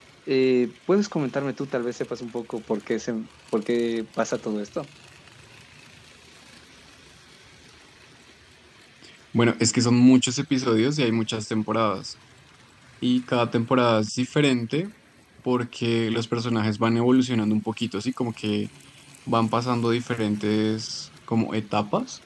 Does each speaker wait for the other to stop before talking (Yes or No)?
Yes